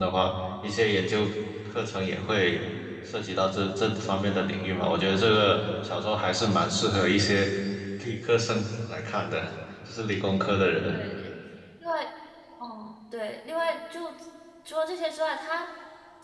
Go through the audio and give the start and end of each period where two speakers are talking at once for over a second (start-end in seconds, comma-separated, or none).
none